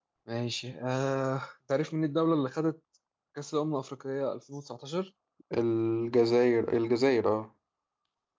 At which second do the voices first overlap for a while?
none

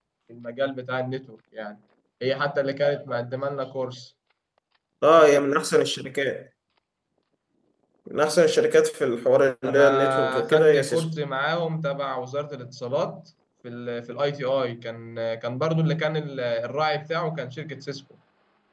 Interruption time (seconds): 9.6 s

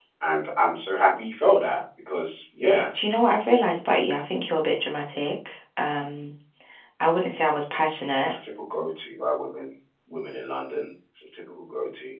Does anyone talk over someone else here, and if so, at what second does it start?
none

